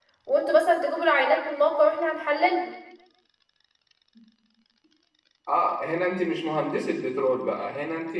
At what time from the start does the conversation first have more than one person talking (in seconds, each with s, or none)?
none